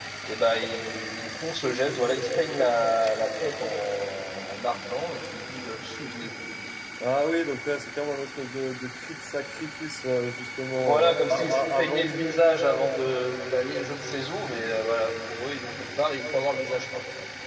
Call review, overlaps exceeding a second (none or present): present